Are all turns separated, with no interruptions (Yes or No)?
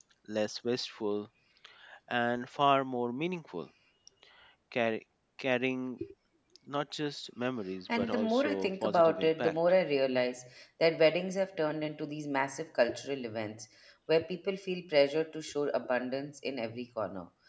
No